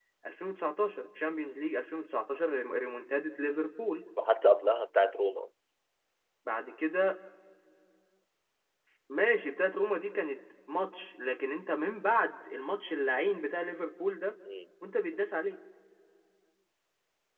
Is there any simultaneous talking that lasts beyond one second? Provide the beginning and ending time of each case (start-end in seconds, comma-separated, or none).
none